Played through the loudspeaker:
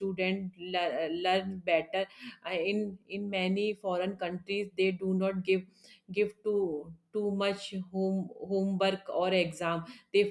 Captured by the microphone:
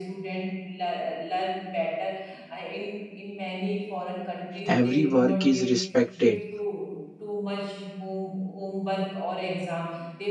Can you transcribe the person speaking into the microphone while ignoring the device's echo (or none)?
Every work is respected